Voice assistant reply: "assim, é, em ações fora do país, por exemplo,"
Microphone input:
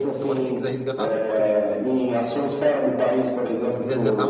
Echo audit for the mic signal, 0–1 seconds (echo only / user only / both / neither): both